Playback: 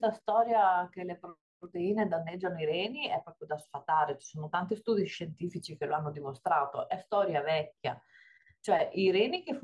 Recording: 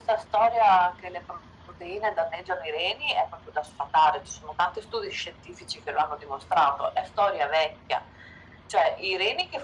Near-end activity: none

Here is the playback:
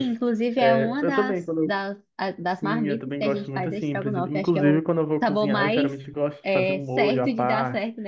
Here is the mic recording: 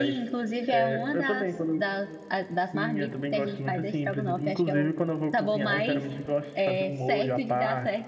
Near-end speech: none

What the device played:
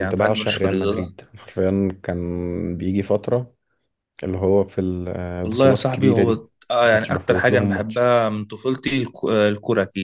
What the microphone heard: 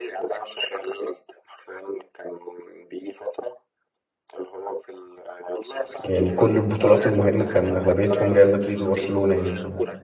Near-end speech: present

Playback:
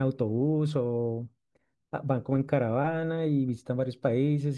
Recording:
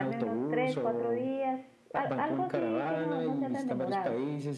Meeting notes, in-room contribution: present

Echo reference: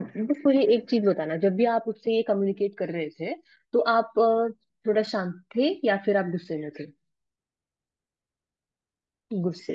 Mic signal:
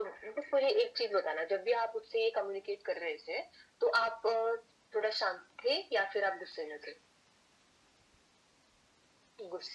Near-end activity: none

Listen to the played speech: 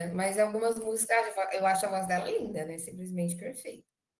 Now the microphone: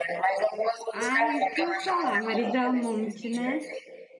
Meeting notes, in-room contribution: present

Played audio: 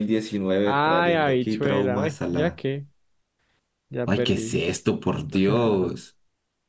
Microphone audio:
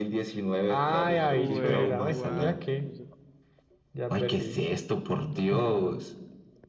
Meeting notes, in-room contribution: present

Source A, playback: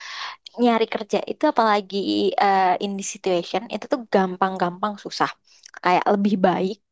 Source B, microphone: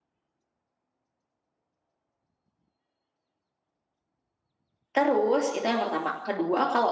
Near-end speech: present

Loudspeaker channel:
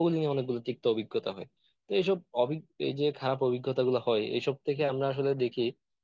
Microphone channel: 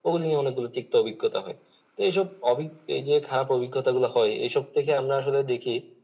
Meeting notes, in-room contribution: none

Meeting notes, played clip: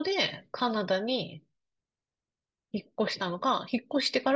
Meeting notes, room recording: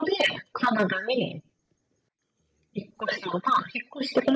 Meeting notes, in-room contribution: none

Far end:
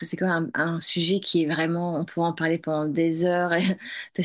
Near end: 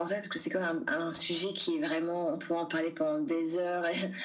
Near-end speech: none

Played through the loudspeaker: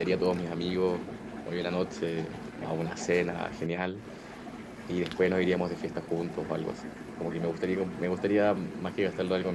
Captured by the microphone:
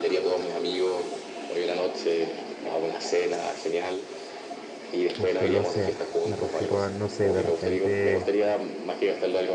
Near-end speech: present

